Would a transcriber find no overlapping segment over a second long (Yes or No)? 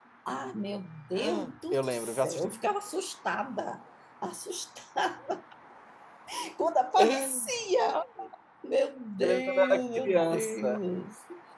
No